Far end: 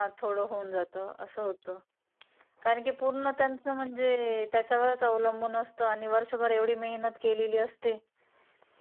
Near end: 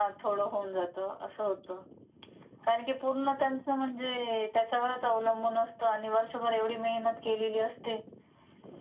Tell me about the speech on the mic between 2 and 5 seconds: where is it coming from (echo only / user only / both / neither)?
echo only